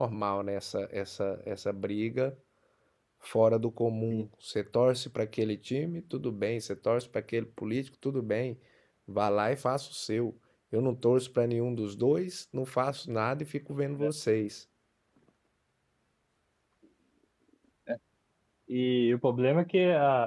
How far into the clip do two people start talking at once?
none

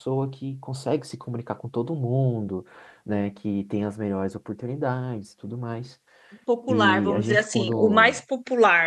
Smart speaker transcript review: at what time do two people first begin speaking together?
6.7 s

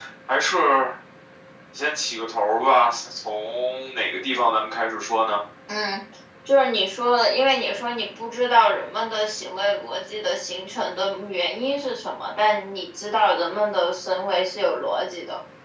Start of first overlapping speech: none

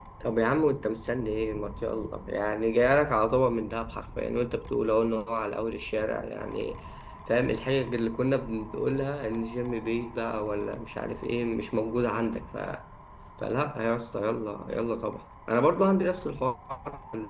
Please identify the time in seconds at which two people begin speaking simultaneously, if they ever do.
none

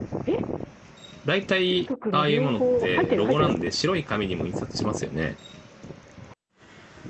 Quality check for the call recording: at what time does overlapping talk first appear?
1.6 s

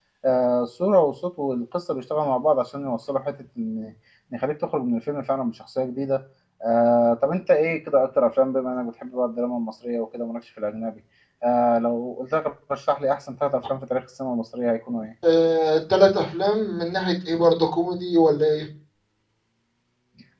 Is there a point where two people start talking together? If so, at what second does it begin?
none

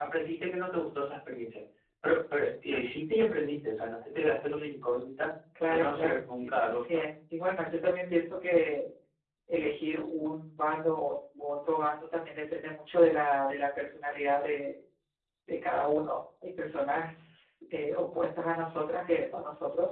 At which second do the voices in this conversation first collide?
5.5 s

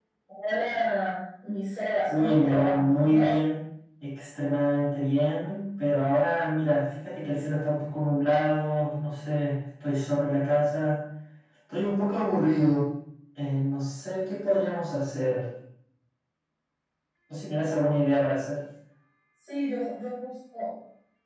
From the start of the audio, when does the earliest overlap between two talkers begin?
2.1 s

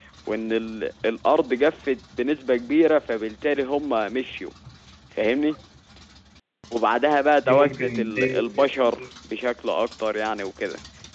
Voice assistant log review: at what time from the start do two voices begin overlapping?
7.5 s

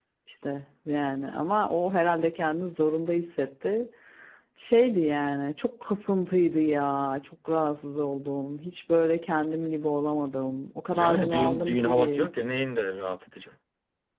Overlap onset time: 10.9 s

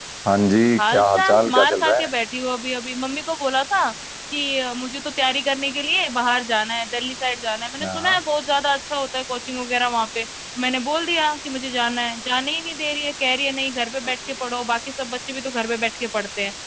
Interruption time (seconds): 0.8 s

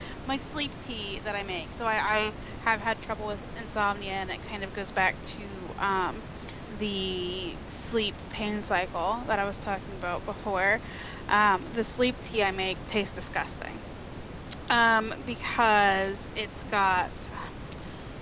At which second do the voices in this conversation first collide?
none

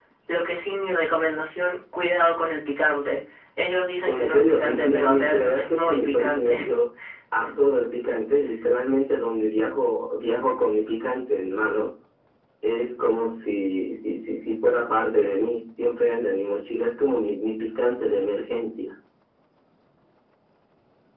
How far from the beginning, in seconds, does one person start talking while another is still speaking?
4.1 s

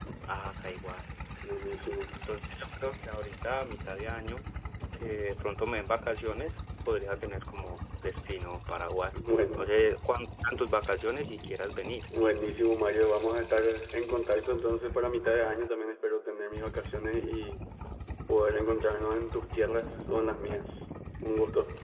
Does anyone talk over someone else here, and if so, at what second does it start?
none

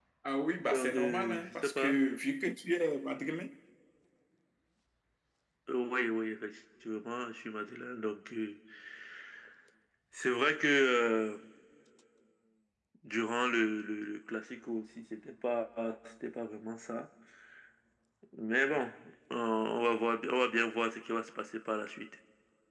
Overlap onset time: 0.7 s

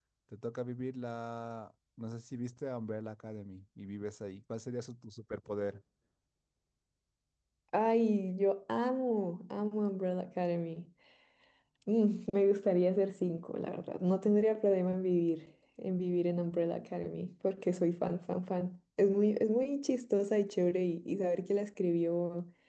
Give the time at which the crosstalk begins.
none

